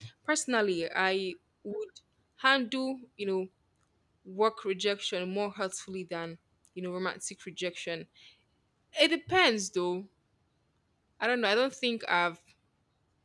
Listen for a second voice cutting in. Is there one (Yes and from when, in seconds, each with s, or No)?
No